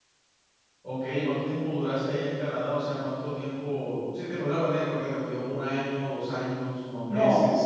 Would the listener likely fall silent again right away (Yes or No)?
No